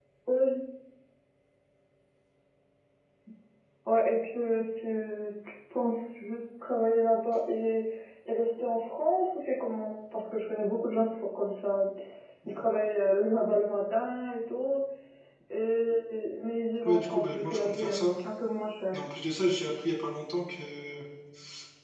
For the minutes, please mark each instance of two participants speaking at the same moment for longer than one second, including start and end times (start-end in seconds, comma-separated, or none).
16.8-18.1